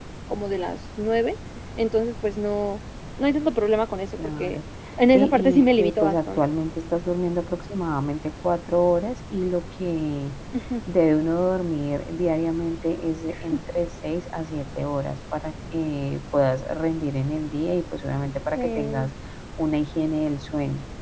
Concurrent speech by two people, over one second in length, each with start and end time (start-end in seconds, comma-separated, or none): 5.1-6.4